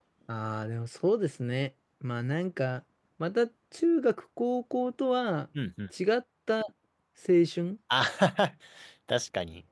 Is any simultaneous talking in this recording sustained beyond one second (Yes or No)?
No